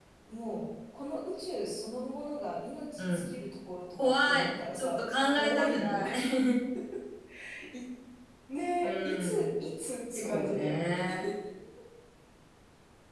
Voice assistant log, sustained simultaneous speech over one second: present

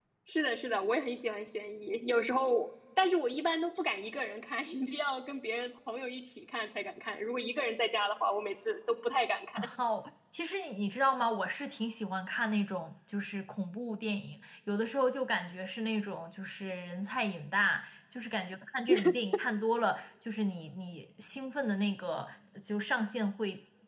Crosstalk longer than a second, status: none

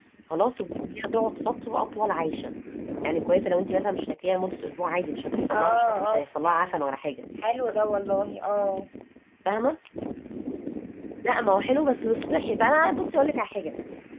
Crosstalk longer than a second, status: present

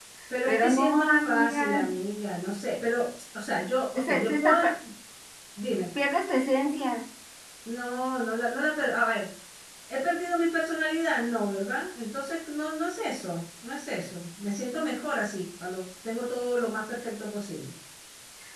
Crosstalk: present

